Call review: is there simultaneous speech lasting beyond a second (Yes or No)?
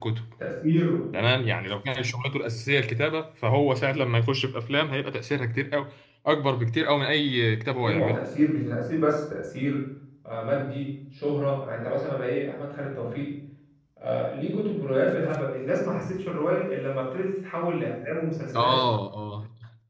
No